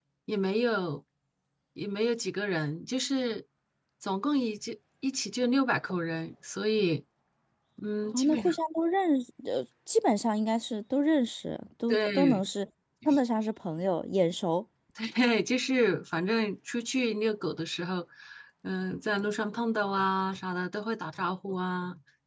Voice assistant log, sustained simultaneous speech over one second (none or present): none